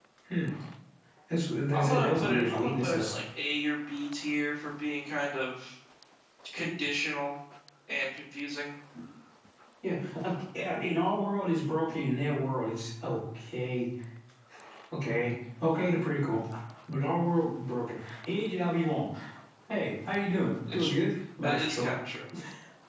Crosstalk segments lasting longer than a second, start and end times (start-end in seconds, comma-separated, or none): 1.7-3.1